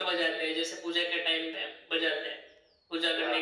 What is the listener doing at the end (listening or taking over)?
taking over